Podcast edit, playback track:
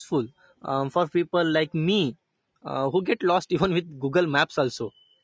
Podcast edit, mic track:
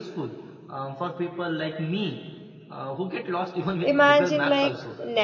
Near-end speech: present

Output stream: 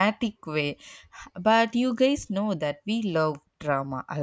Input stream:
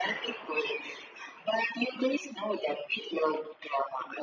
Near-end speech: none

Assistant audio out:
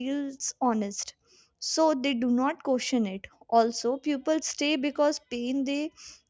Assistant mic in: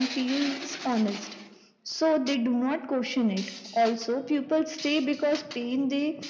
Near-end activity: none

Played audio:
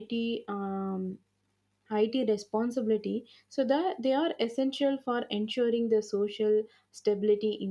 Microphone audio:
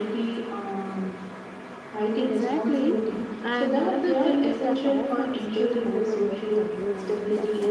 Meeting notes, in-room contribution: present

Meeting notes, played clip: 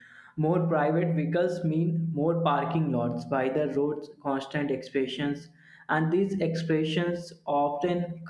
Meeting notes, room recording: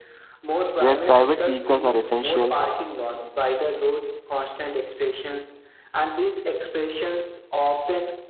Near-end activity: present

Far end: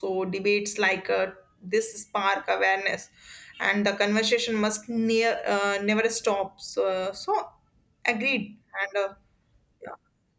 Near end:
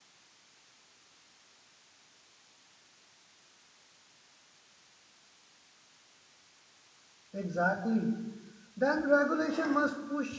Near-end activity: present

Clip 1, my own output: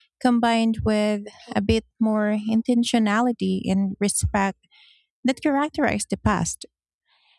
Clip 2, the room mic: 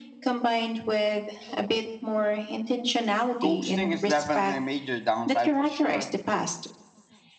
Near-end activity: present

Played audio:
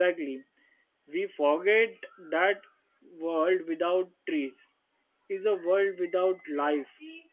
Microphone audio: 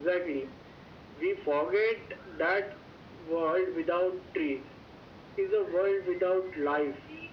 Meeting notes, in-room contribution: none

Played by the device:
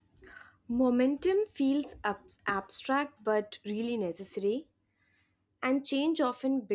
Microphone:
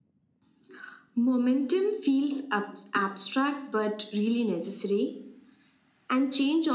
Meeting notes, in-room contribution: none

